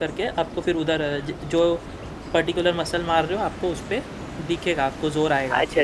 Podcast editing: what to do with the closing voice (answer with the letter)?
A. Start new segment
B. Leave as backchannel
A